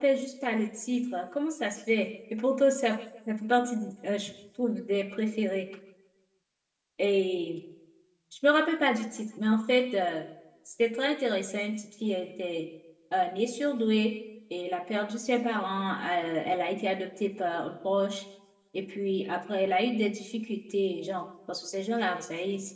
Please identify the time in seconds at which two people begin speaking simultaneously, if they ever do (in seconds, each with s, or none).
none